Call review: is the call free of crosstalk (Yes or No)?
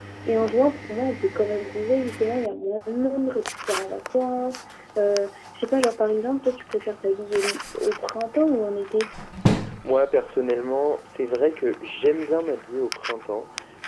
Yes